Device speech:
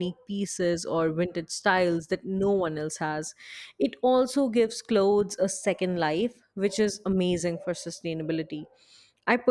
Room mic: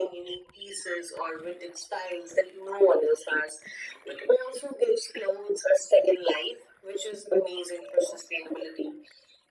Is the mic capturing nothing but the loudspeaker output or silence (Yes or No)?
Yes